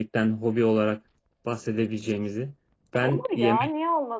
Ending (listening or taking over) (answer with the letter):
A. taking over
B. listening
A